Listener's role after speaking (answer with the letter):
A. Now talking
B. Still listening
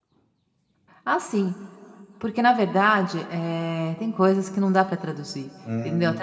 A